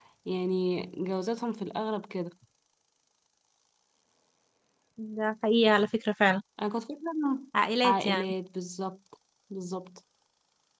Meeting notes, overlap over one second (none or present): none